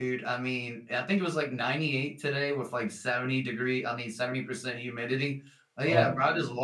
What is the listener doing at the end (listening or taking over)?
listening